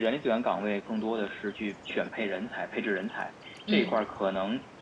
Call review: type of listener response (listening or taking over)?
listening